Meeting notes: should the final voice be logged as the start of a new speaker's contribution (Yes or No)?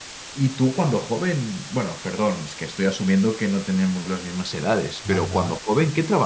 No